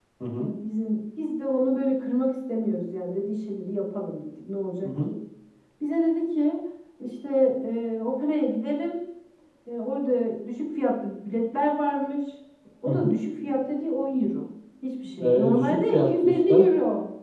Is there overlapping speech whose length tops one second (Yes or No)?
Yes